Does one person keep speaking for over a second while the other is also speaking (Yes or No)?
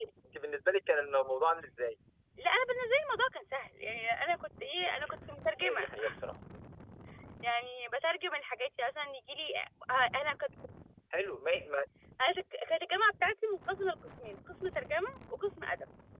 No